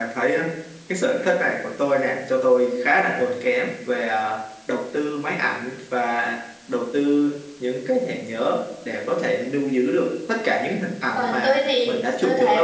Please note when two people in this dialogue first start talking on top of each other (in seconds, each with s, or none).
11.2 s